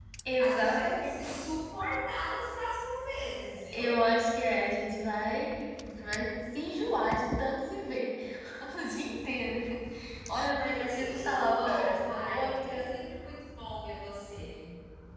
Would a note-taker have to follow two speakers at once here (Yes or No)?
Yes